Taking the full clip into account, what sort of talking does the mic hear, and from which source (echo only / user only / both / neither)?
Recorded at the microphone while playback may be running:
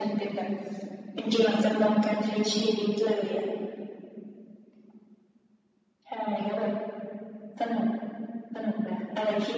echo only